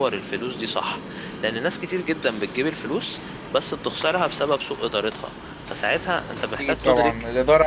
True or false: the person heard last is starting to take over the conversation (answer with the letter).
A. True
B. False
A